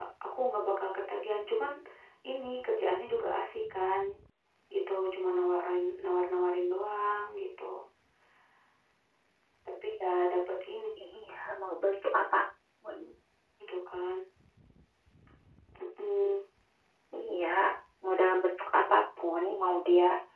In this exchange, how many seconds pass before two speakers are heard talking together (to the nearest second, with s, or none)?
none